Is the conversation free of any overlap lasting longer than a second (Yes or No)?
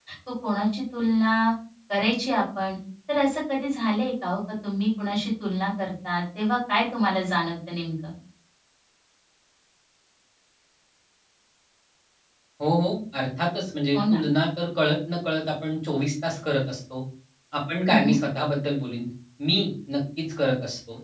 Yes